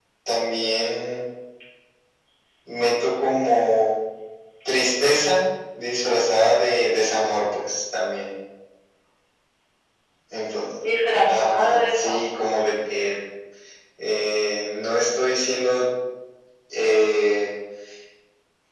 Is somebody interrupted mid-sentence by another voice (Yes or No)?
Yes